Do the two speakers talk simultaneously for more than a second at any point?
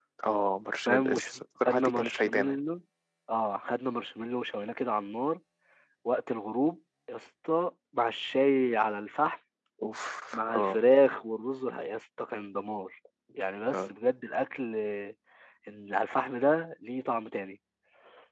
Yes, from 0.9 s

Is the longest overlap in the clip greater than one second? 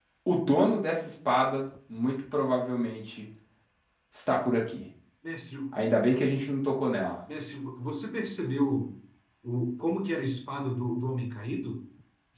No

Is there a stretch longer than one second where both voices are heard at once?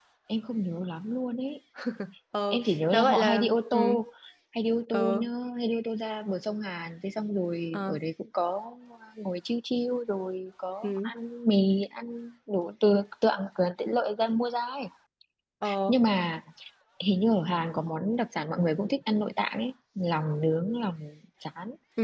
Yes, from 2.5 s

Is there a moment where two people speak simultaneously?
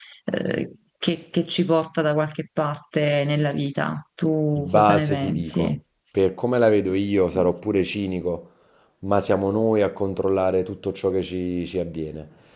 Yes, from 4.5 s

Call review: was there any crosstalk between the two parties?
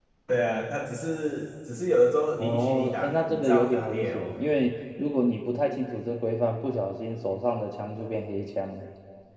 Yes, from 2.4 s

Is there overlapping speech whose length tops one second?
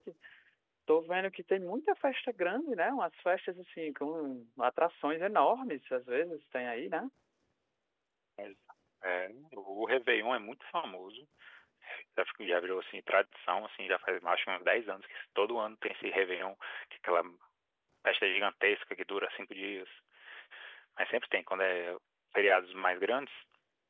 No

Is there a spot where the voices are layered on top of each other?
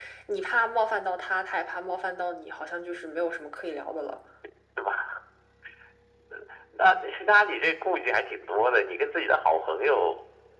No

